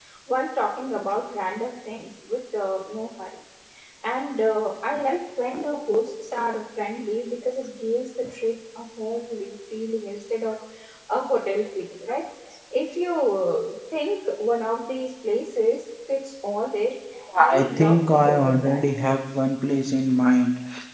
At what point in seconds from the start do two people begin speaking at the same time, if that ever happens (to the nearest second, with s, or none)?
17 s